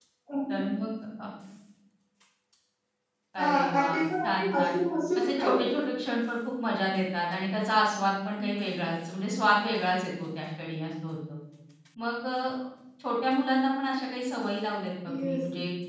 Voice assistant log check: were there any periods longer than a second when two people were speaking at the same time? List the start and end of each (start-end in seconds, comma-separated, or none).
3.4-4.8